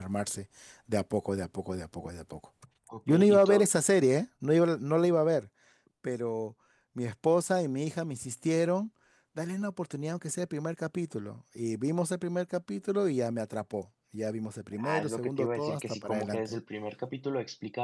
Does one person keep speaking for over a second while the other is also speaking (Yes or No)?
Yes